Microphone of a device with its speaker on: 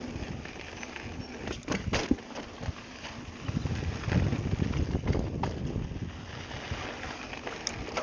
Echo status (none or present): none